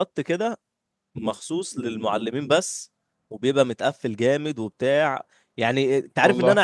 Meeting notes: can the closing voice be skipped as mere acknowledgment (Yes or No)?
Yes